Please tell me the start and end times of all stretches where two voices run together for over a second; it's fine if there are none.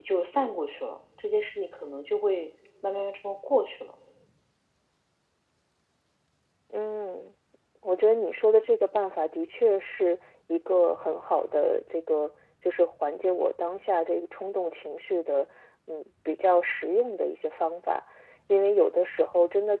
none

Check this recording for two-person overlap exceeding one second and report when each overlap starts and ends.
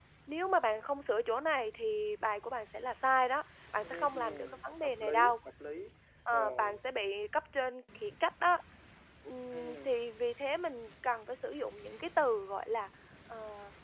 3.8-5.3

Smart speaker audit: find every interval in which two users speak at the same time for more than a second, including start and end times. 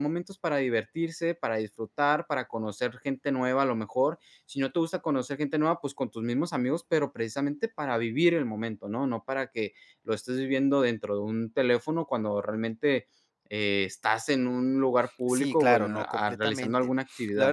15.3-16.7

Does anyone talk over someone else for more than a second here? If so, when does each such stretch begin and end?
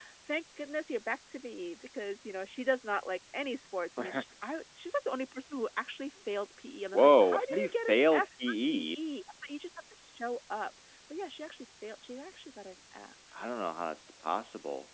7.0-8.8

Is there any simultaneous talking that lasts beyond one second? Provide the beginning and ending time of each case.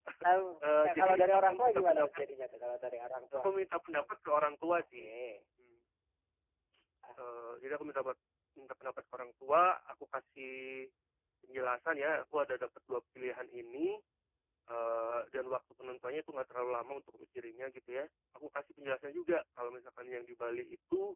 0.8-2.2

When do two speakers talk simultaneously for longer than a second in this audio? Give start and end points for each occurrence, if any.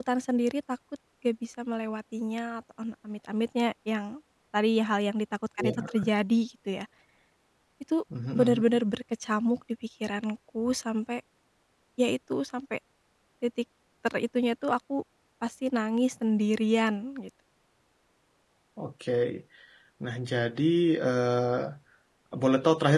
none

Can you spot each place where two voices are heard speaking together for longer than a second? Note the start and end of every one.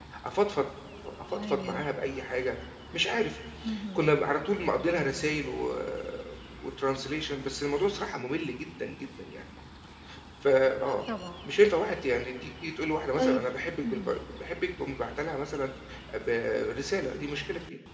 none

